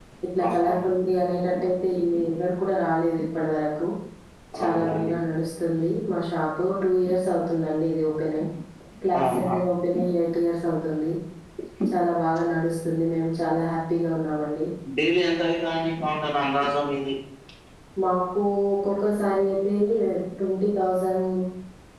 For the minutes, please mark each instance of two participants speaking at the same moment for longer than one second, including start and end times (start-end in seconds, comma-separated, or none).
none